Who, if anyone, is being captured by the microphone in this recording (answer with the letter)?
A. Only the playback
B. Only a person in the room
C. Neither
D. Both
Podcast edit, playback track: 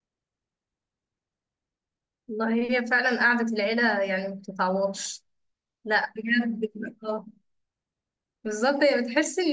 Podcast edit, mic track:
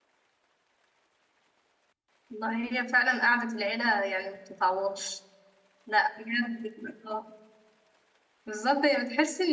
A